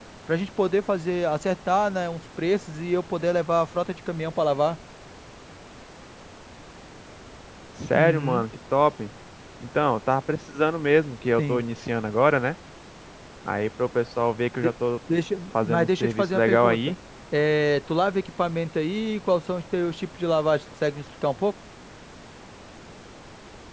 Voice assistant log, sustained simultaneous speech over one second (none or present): present